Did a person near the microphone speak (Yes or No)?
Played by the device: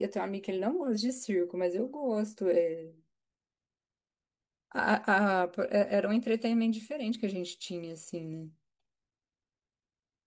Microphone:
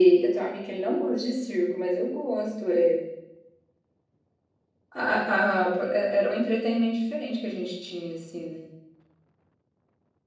No